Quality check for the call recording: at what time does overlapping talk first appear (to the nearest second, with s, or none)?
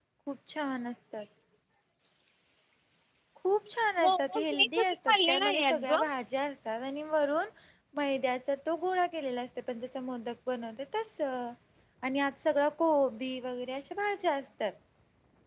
4 s